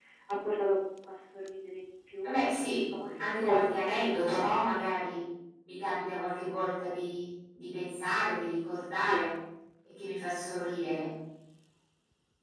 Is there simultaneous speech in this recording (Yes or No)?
Yes